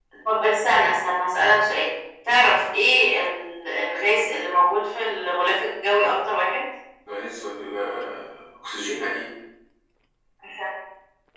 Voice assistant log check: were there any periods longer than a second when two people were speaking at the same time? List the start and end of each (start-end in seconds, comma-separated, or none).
none